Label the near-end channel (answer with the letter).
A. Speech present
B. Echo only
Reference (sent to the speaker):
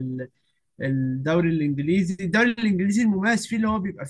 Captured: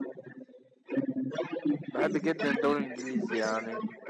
A